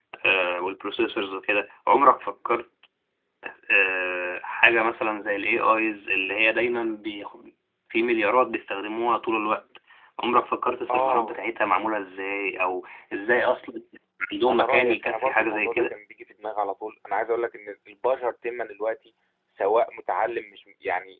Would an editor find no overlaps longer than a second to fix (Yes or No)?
No